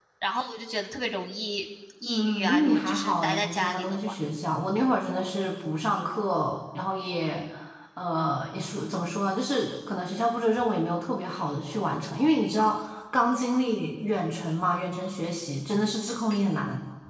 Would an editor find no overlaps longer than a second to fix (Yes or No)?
No